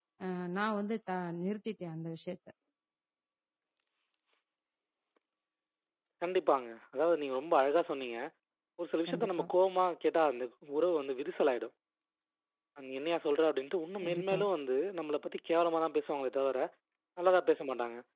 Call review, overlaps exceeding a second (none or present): none